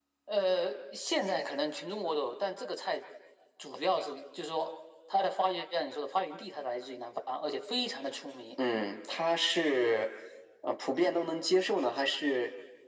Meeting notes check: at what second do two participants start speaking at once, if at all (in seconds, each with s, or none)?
none